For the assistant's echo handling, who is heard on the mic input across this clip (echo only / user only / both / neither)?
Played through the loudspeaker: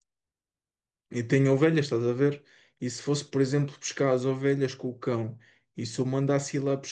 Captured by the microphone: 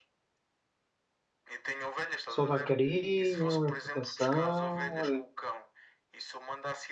both